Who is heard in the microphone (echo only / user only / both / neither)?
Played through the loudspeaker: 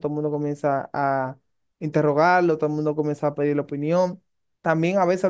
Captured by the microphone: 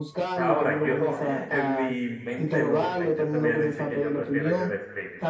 both